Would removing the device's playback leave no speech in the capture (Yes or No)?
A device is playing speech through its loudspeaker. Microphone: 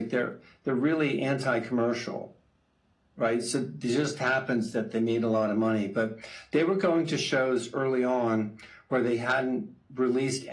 Yes